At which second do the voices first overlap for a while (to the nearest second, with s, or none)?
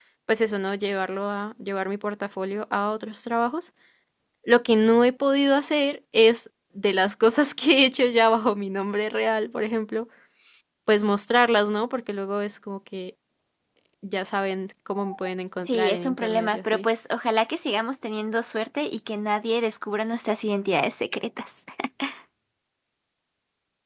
16 s